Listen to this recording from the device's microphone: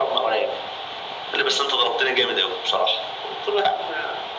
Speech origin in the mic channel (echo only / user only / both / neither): echo only